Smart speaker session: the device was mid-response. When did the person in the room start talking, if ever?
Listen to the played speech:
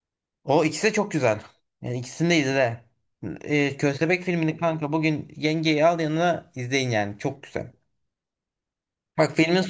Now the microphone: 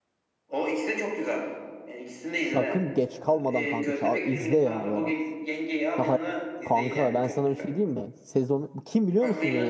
2 s

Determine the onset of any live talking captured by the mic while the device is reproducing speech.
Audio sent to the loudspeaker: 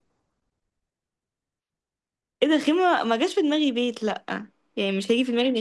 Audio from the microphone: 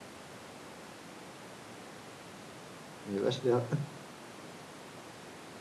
3 s

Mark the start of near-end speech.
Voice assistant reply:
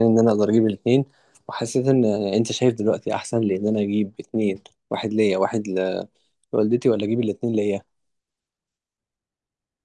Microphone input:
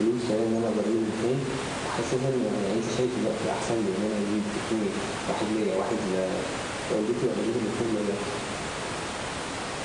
none

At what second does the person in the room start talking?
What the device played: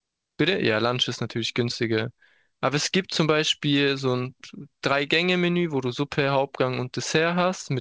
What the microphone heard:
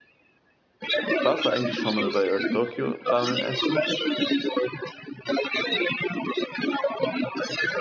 1 s

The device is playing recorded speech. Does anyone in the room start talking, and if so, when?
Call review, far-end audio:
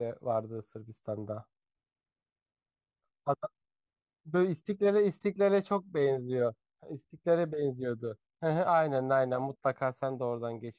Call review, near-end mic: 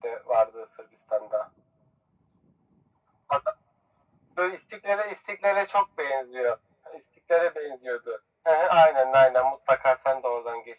none

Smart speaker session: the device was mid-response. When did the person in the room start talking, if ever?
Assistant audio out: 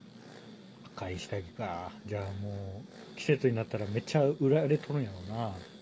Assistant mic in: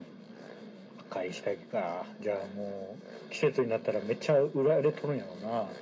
none

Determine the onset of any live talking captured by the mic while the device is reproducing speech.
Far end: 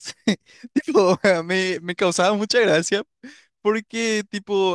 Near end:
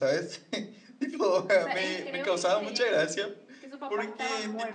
2 s

